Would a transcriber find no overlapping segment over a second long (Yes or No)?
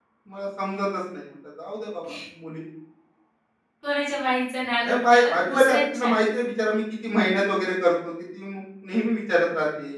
No